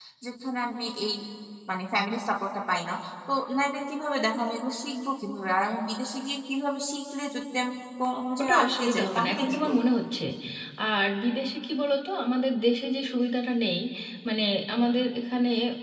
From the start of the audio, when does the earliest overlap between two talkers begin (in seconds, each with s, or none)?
8.4 s